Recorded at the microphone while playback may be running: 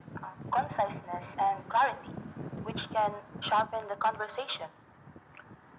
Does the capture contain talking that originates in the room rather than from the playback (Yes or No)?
No